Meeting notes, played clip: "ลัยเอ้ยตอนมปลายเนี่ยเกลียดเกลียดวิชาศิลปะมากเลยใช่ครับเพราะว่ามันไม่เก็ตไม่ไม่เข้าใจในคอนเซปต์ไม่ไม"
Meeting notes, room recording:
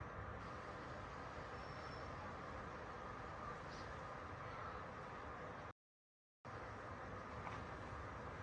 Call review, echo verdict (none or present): none